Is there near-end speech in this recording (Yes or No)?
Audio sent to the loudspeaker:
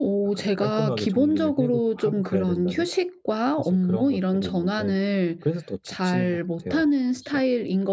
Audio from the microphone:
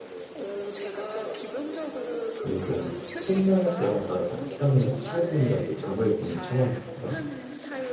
Yes